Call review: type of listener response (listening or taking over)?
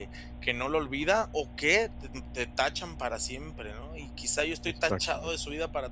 listening